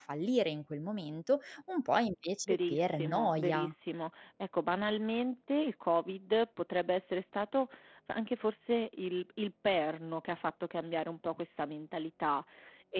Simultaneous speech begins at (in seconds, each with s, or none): 2.5 s